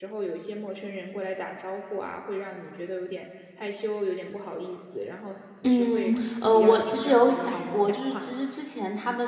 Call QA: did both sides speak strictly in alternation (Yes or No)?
No